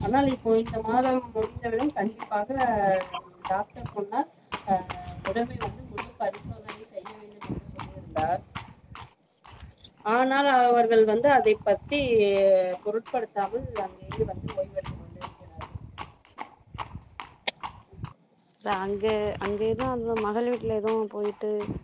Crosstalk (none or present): none